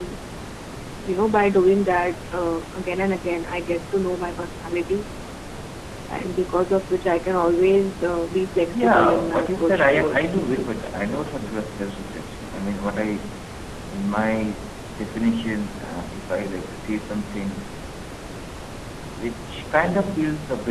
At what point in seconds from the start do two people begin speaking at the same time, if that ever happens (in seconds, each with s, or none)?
8.7 s